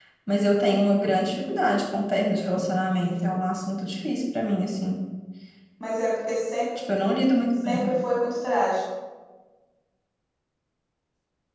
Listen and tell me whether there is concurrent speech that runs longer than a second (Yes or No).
No